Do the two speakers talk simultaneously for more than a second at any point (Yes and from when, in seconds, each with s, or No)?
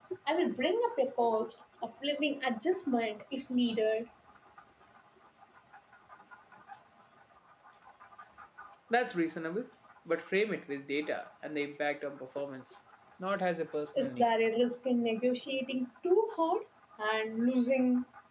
No